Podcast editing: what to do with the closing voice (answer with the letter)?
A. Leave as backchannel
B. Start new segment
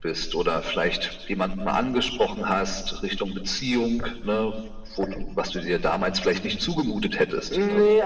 B